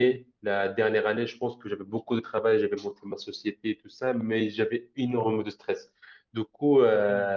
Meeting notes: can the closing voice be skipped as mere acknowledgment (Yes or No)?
Yes